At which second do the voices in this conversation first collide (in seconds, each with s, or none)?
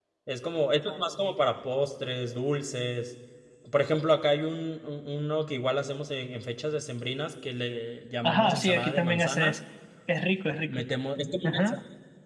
8.2 s